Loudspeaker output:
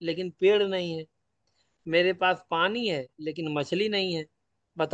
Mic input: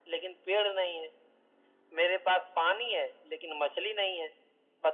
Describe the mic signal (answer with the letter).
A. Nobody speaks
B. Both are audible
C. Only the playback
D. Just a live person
C